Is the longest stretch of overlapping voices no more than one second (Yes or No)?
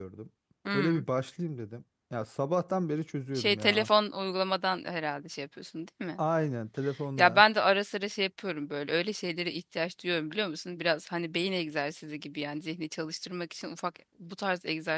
Yes